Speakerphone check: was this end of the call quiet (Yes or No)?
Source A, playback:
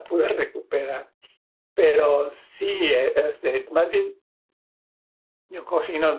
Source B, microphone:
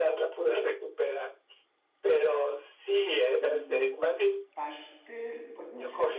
No